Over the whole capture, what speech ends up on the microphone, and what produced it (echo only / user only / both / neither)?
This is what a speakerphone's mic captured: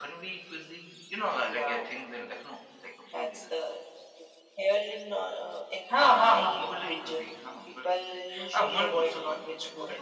echo only